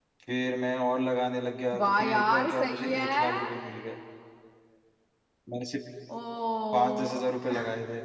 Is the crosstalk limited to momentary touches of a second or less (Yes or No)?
No